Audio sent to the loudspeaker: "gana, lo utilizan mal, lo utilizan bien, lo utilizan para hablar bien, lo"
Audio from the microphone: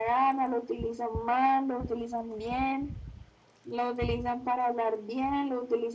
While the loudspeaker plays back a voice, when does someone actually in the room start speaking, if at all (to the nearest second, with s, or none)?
none